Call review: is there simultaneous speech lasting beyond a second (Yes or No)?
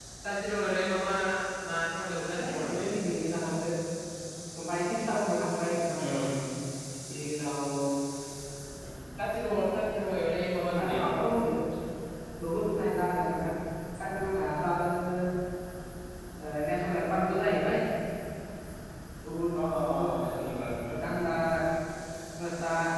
No